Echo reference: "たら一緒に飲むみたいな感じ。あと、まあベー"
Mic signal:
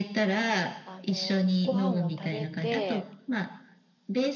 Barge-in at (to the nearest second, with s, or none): 1 s